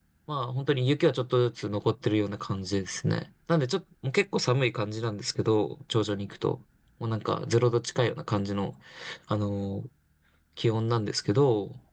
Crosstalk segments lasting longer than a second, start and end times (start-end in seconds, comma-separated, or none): none